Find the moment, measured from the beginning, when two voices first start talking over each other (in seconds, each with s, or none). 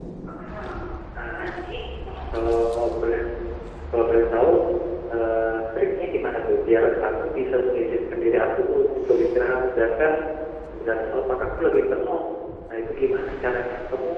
none